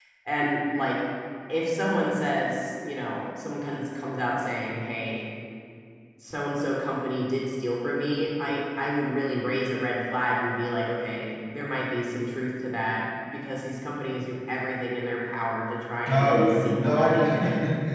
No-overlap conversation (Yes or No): No